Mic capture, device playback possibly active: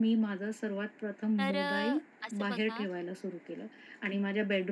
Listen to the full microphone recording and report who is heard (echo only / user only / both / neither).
both